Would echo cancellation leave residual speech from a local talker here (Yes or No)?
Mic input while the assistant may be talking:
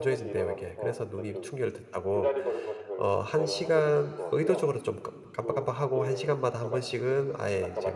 Yes